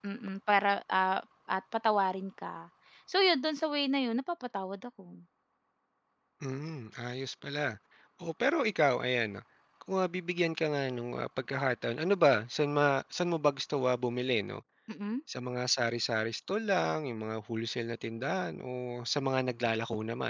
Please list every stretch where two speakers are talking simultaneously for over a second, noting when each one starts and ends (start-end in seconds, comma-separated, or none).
none